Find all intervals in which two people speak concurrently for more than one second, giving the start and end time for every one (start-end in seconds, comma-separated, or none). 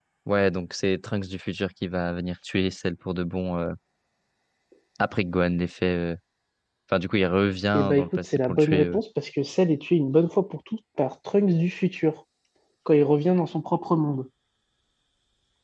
7.7-9.0